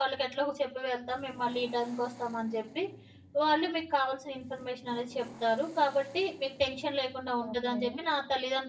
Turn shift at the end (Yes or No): No